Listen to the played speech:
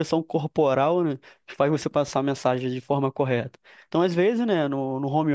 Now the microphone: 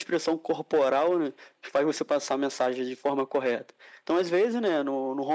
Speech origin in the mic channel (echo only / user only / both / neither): echo only